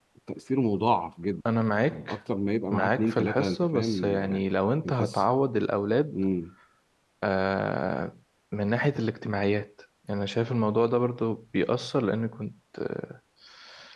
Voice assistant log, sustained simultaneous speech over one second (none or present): present